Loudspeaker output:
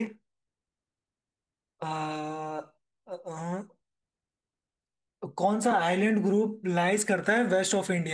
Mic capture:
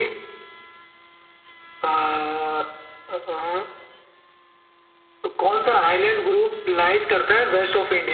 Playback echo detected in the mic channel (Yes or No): Yes